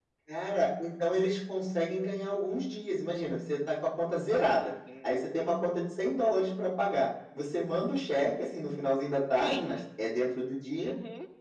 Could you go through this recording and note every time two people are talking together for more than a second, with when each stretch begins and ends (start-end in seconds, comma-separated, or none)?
none